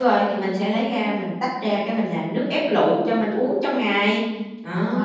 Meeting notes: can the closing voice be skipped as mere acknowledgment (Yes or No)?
No